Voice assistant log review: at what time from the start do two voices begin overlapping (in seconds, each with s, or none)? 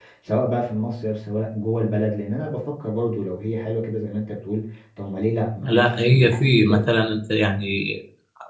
5.6 s